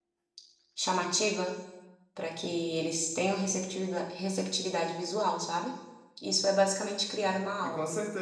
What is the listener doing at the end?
taking over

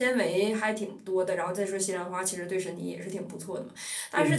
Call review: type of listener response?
listening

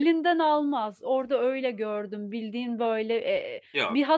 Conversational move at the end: listening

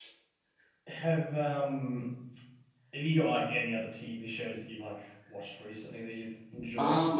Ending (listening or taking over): taking over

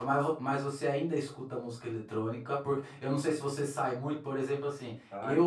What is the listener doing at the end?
listening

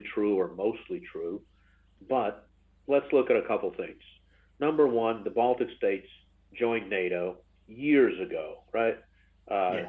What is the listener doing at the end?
listening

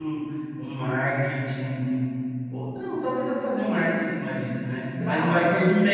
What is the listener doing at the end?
listening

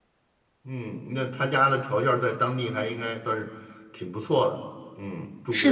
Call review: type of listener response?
taking over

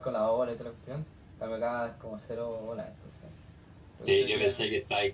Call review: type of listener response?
taking over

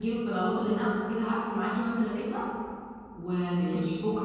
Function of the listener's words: listening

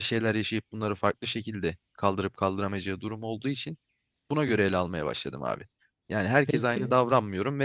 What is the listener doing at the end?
listening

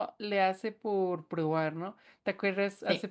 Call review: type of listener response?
listening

